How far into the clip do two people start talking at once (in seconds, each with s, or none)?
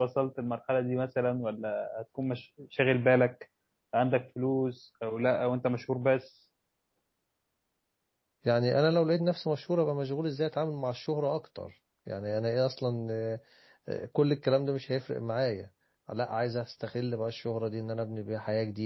none